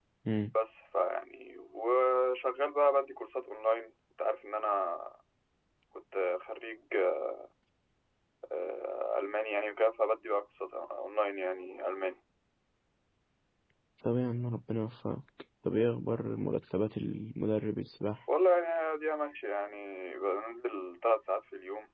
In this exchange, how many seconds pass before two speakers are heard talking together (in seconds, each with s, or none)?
none